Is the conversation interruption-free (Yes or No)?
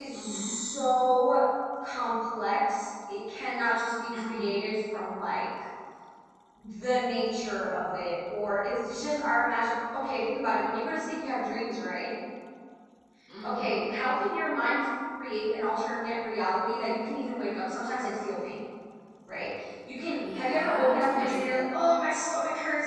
No